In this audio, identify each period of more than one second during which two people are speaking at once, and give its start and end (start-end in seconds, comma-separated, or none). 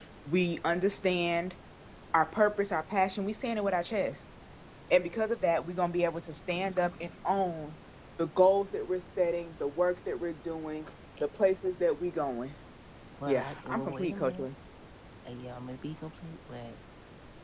13.3-14.5